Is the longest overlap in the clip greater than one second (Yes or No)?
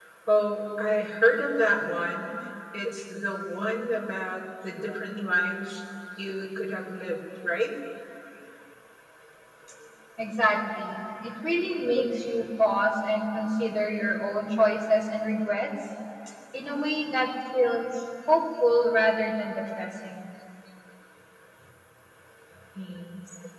No